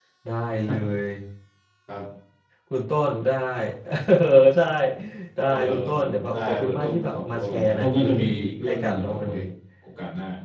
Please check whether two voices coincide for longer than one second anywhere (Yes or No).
Yes